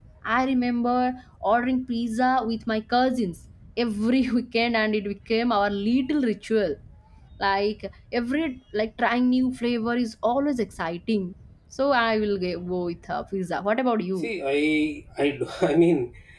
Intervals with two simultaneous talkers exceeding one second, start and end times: none

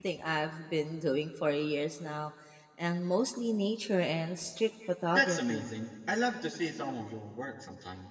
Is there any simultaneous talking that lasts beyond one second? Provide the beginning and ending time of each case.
none

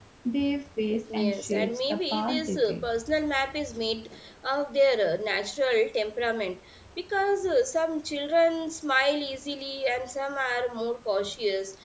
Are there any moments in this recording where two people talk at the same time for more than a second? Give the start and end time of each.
1.2-2.9

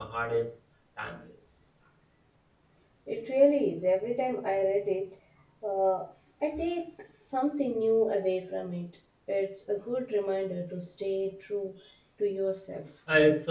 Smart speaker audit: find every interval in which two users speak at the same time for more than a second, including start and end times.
none

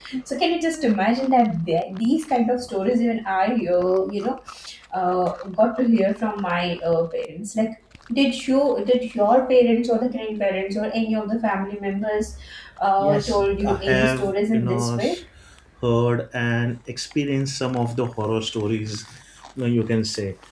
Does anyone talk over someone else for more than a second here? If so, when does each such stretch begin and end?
13.0-15.1

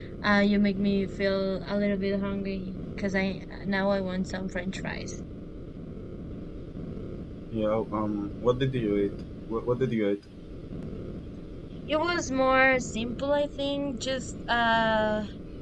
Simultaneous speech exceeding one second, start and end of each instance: none

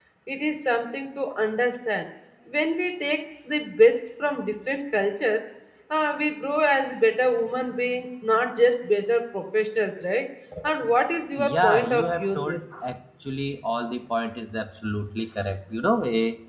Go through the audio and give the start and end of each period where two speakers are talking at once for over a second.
11.4-12.6

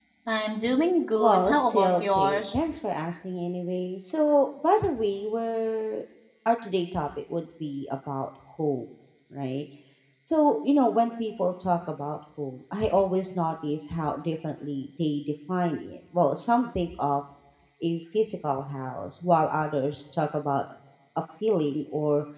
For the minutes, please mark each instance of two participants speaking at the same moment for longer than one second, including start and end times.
1.2-2.6

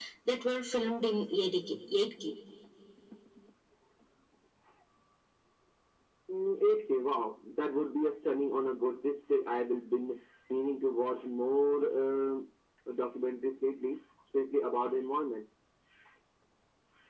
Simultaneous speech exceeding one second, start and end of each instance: none

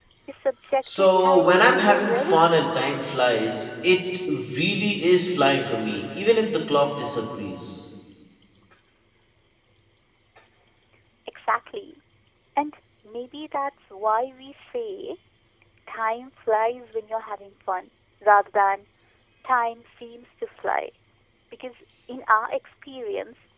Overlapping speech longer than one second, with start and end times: 1.0-2.7

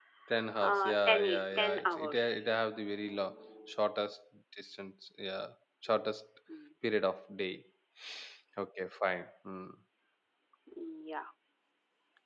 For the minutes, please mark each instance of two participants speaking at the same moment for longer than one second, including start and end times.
0.6-2.5

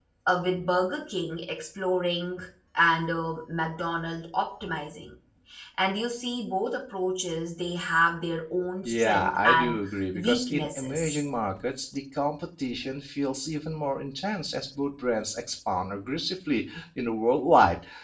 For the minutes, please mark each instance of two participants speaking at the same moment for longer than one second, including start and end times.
8.8-11.2

